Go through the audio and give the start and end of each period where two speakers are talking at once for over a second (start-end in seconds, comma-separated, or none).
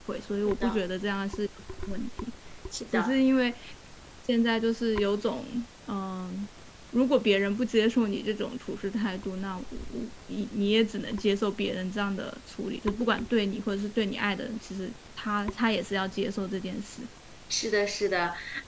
none